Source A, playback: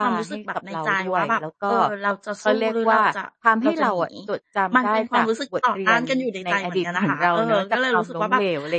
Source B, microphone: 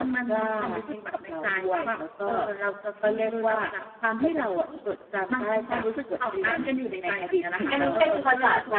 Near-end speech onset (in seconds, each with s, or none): 7.7 s